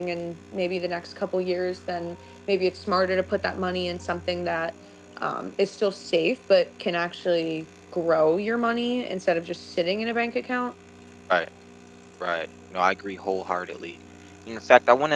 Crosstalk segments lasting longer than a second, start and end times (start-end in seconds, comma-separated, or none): none